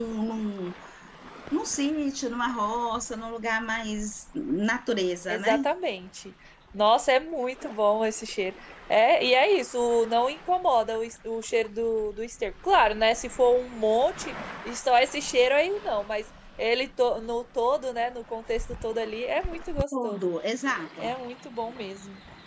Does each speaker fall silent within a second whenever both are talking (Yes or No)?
Yes